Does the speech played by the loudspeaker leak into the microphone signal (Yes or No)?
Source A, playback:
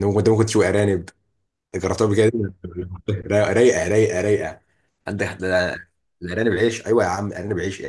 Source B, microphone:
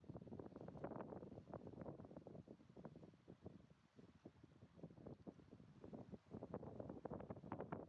No